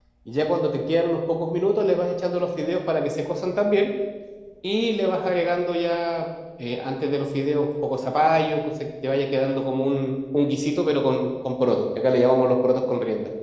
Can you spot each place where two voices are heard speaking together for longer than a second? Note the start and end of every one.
none

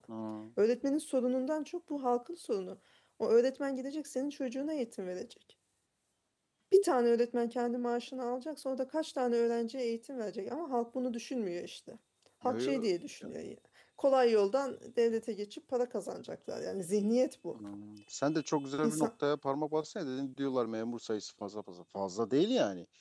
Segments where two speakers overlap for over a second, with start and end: none

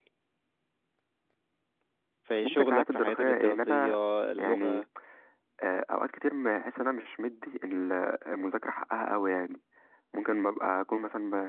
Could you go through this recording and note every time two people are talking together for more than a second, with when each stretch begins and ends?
2.4-3.9

